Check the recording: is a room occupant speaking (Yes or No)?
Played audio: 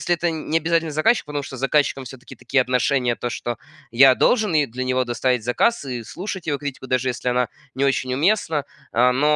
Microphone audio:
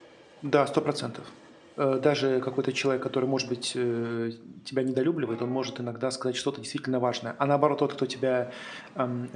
Yes